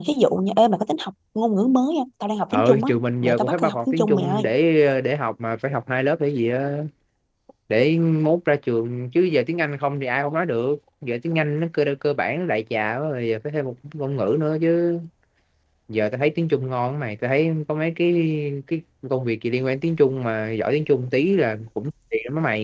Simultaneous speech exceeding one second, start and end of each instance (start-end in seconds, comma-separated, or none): 2.5-4.4